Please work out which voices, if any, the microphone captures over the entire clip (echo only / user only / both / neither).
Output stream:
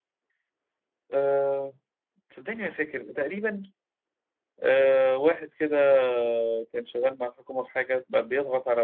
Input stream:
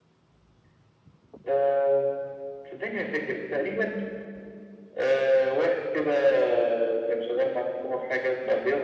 echo only